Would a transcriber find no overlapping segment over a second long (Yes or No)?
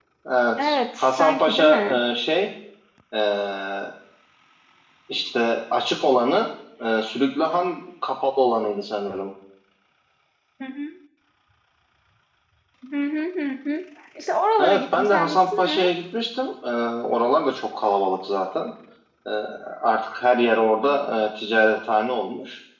No